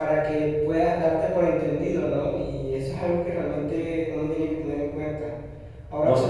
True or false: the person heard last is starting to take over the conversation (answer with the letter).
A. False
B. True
A